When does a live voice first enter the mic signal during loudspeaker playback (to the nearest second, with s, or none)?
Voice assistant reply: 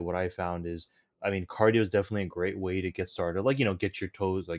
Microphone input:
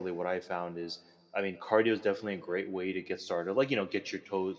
none